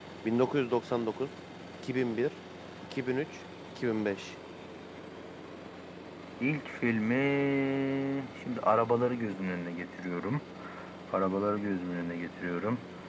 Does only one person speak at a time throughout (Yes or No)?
Yes